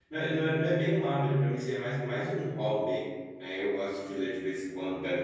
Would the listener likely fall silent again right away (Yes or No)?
Yes